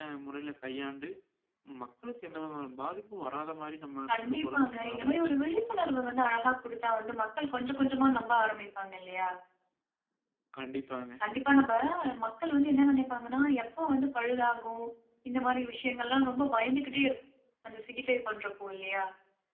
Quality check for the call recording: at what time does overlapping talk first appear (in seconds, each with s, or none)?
4.1 s